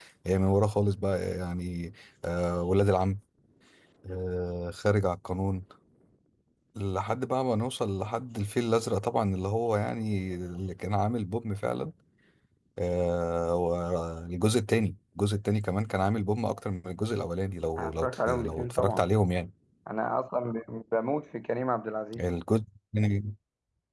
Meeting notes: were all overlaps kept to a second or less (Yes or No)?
No